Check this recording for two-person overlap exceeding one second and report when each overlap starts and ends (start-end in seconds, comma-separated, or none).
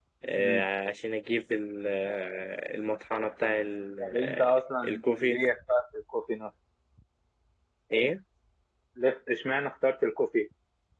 4.0-5.4